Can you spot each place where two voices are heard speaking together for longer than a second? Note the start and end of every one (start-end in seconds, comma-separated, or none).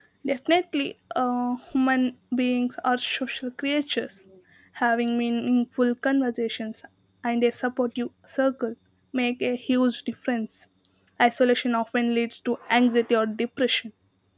none